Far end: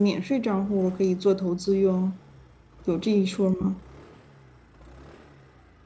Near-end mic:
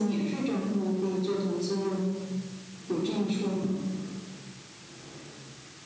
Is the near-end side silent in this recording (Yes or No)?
Yes